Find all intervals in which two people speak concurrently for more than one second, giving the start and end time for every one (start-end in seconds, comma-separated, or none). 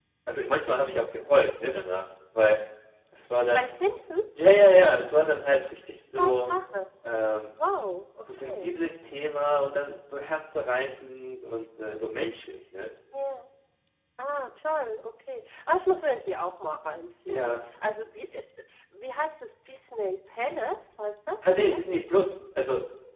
none